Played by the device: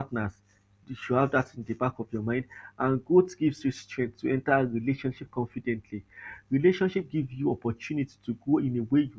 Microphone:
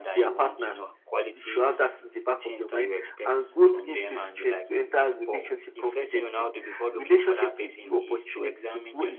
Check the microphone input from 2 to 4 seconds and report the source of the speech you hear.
both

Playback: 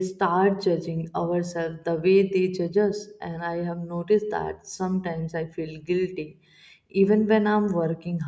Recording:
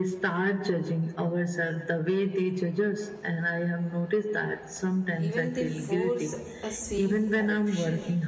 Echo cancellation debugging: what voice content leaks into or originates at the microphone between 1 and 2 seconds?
echo only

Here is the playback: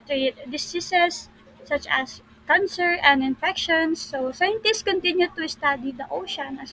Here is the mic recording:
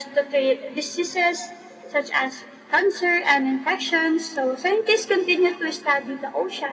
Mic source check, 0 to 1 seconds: echo only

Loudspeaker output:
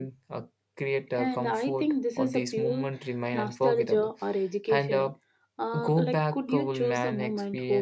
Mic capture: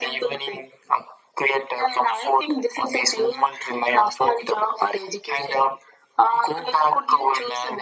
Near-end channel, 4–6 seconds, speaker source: echo only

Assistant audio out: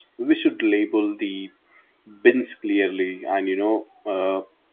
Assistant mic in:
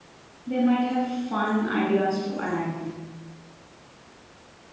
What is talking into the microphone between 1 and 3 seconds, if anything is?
user only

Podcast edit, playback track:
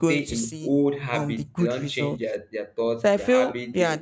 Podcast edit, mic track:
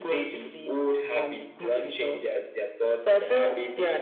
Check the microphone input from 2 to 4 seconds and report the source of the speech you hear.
echo only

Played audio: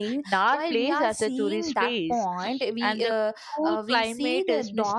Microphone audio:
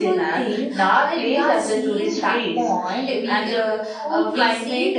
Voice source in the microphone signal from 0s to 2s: echo only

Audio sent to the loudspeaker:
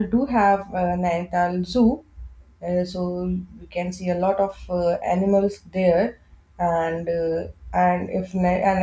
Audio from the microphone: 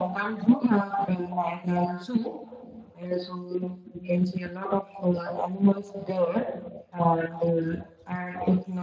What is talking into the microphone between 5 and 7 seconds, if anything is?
echo only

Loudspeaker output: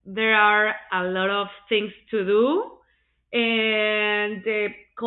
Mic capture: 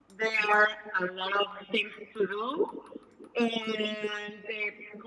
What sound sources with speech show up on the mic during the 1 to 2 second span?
echo only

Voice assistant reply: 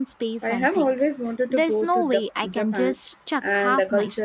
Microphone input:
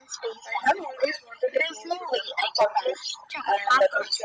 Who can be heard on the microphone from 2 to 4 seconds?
echo only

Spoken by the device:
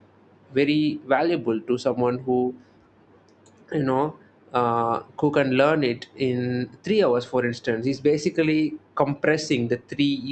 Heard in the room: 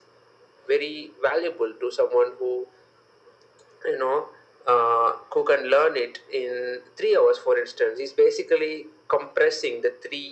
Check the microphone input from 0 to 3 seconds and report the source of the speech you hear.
echo only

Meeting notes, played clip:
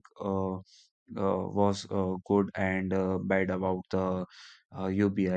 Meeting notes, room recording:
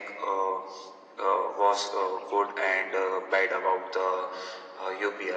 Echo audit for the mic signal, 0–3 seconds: echo only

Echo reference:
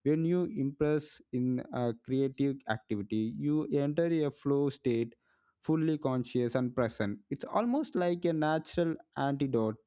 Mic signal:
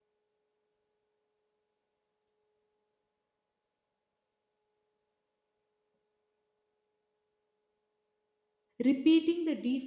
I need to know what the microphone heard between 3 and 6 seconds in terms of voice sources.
neither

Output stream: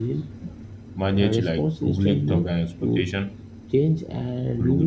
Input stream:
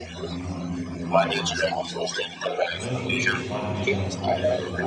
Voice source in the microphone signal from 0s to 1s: both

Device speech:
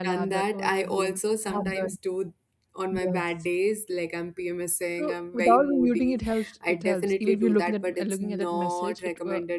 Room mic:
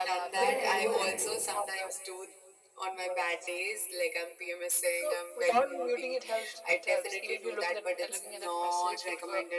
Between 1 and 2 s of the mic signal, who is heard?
both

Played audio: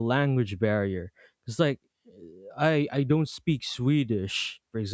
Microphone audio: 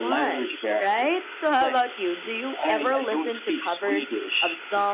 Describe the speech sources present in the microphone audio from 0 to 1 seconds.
both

